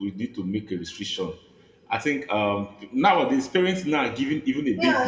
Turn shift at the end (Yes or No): Yes